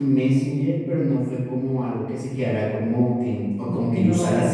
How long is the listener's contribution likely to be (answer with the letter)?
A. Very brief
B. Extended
A